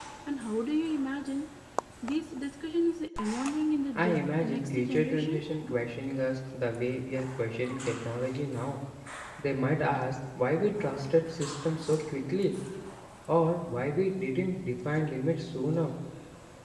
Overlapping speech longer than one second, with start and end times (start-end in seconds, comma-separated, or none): 4.0-5.4